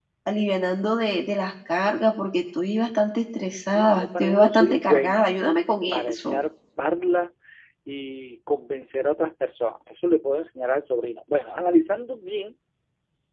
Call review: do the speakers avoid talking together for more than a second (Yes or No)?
No